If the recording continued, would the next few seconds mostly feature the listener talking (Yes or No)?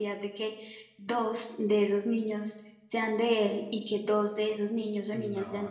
Yes